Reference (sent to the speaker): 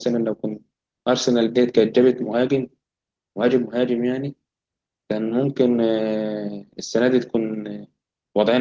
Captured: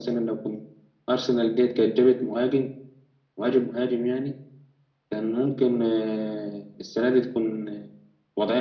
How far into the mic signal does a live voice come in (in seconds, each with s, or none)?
none